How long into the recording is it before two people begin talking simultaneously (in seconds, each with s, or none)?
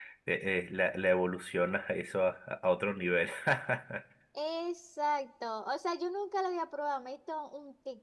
none